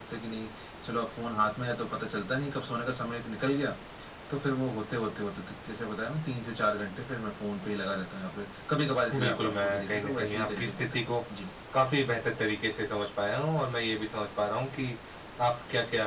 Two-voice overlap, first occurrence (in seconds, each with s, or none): 9.1 s